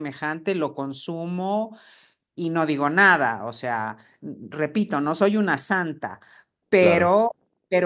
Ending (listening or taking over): listening